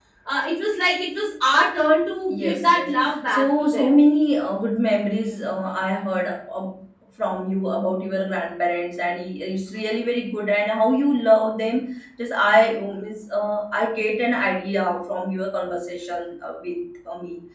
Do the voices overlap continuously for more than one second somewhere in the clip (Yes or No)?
Yes